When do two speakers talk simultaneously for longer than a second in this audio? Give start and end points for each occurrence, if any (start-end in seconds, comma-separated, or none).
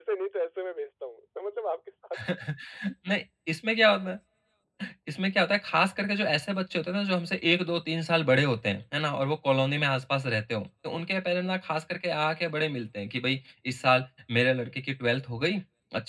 none